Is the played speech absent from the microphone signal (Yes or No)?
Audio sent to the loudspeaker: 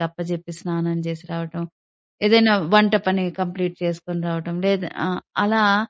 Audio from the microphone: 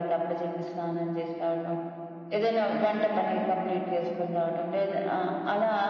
No